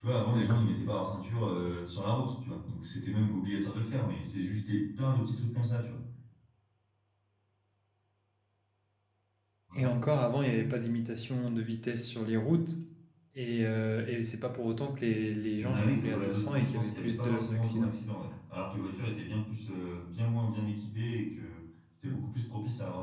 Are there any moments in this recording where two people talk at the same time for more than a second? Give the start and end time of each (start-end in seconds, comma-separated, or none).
15.6-17.9